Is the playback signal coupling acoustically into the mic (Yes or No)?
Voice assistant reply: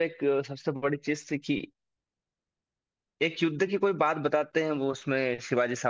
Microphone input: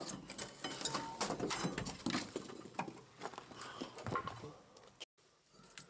No